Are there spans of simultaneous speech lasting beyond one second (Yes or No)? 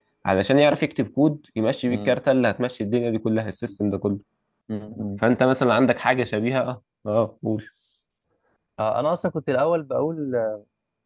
No